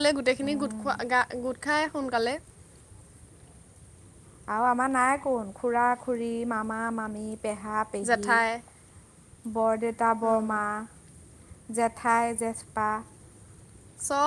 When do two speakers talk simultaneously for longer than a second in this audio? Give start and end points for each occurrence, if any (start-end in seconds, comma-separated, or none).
none